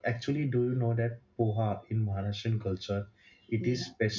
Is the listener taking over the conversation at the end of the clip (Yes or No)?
Yes